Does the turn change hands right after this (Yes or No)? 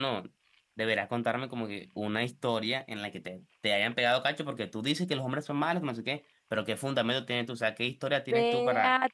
Yes